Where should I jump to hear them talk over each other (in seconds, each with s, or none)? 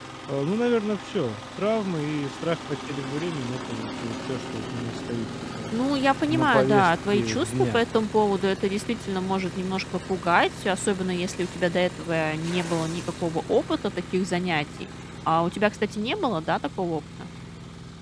6.3 s